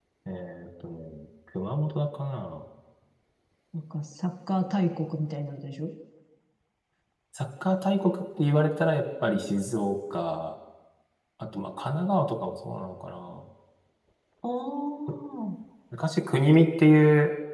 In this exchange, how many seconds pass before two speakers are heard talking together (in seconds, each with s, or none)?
none